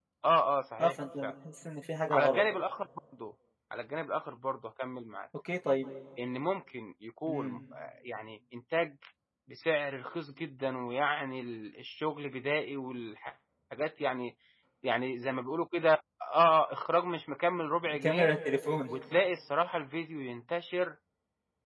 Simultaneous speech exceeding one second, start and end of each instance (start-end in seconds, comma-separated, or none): none